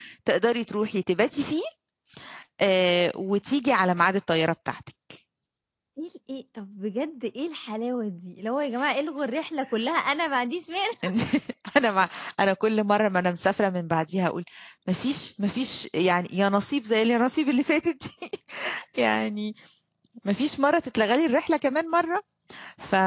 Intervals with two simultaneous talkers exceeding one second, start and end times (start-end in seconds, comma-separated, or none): none